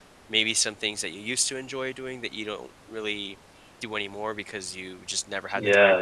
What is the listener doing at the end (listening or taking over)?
taking over